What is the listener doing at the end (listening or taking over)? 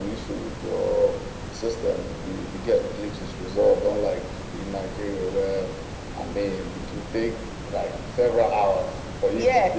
taking over